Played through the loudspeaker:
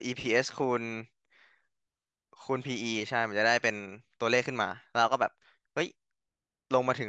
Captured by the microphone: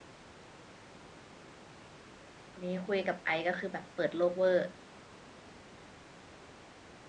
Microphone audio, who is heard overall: user only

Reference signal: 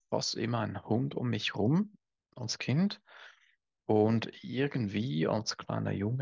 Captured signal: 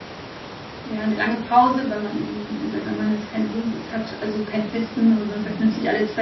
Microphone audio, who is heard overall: user only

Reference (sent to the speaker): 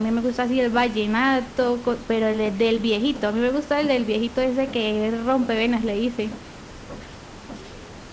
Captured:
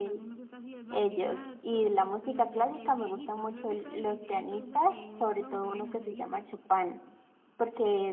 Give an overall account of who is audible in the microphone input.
both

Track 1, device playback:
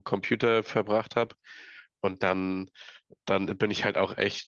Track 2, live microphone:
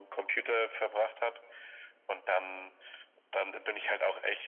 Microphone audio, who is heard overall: echo only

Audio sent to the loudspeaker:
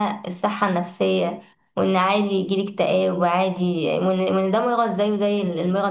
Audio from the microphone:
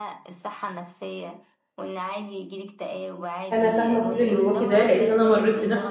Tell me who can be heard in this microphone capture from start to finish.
both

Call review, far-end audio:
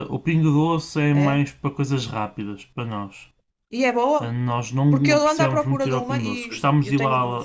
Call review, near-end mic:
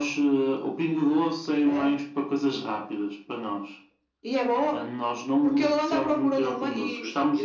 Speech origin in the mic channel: echo only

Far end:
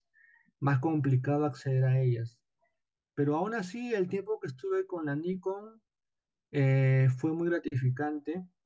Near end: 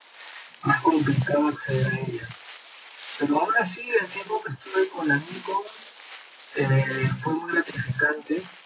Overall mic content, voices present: echo only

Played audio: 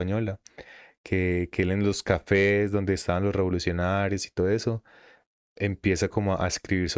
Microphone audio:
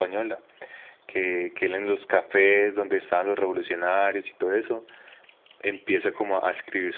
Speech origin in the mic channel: echo only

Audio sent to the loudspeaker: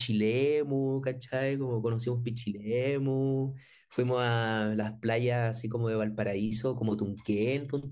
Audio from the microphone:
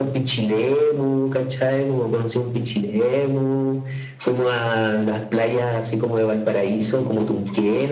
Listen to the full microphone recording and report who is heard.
echo only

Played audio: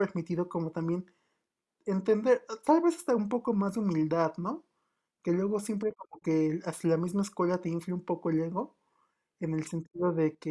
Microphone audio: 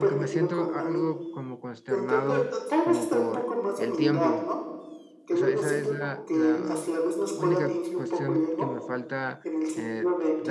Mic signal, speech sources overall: both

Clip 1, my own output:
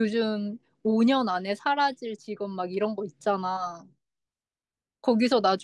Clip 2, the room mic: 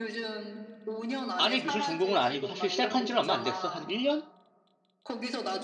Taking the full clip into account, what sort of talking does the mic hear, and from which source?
both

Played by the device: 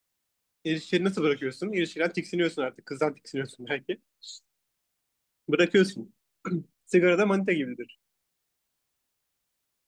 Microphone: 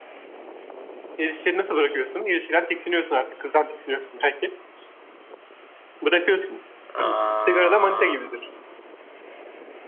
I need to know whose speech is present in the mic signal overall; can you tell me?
both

